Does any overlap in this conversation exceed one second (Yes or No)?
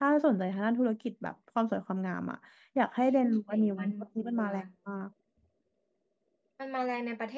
Yes